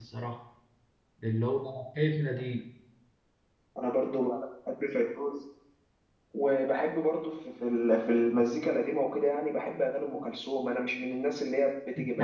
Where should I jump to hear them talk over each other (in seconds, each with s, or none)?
none